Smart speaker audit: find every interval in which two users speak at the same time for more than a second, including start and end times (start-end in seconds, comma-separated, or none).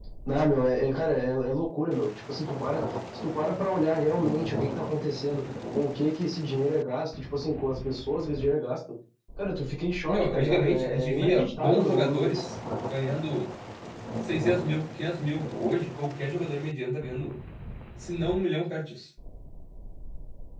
10.0-12.4